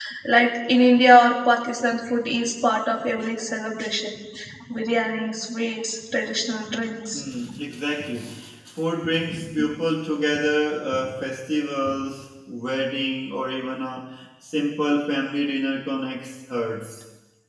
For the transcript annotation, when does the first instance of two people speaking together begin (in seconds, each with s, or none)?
none